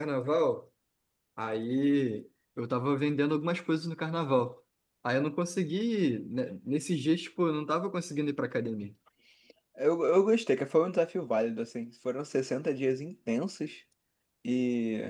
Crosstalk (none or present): none